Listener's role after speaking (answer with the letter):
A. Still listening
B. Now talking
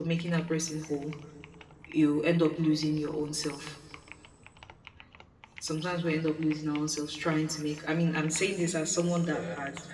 A